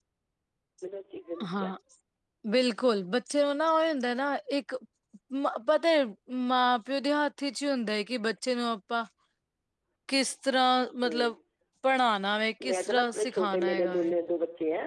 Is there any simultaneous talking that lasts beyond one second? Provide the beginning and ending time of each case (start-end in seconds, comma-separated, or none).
12.6-14.1